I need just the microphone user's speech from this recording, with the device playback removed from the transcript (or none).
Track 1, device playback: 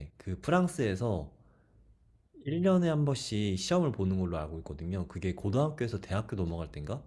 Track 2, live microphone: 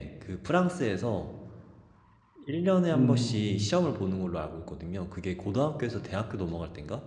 음,